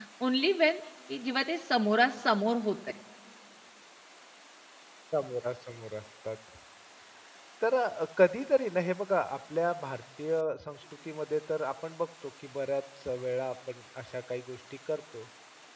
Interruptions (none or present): none